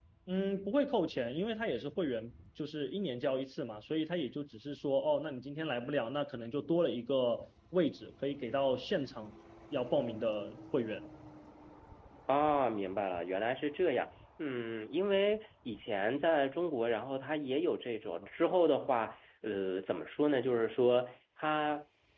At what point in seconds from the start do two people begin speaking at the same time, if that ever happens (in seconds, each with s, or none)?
none